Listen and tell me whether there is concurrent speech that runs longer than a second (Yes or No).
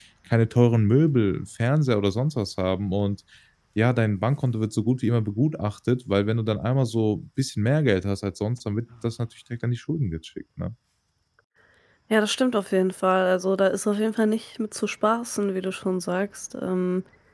No